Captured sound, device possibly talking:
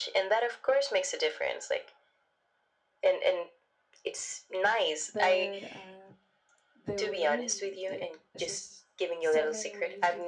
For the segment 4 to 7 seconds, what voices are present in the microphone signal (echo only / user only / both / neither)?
both